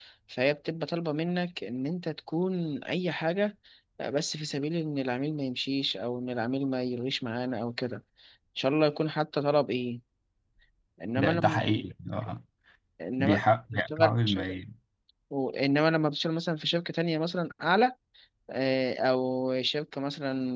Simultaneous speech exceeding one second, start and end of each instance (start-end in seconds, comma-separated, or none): 13.2-14.6